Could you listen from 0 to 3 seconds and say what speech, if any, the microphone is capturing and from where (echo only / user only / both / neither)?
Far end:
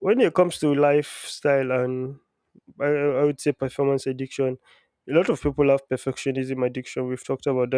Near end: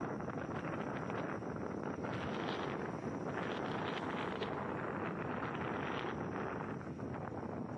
neither